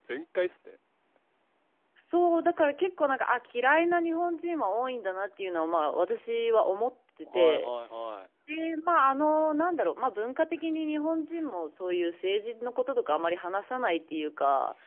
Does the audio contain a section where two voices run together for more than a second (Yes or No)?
No